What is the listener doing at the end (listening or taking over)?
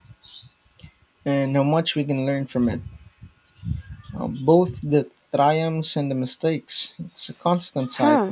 taking over